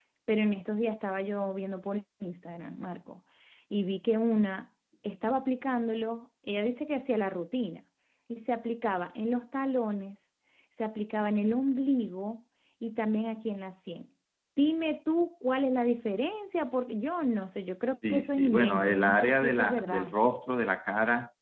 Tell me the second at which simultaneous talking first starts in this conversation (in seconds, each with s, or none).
18.0 s